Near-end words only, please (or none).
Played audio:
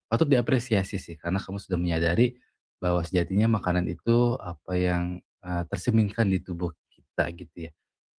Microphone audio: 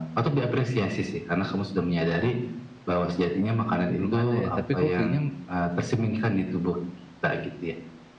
belum ada ya, tapi kamu pilihnya,